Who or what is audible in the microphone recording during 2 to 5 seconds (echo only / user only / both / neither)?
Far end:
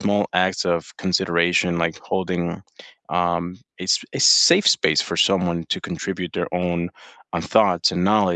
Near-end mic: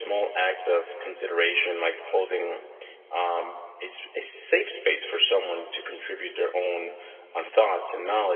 echo only